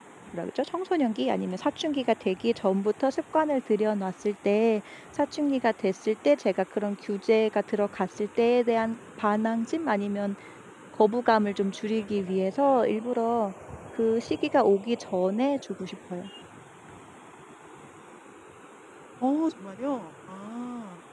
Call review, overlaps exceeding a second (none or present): none